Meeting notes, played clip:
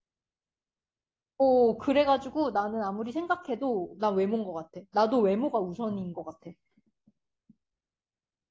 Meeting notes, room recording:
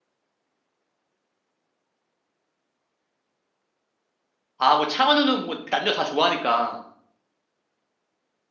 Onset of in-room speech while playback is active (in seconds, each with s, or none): 4.6 s